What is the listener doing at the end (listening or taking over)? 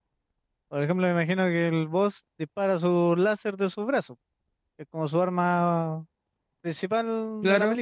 taking over